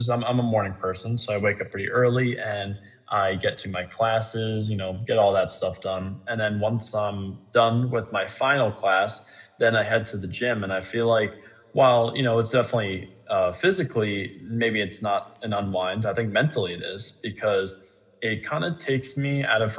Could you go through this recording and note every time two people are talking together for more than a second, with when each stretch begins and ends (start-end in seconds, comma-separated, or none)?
none